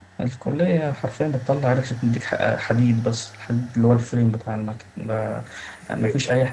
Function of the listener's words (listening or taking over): listening